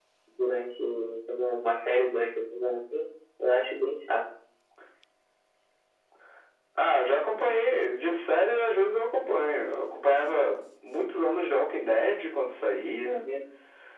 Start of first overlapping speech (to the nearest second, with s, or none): none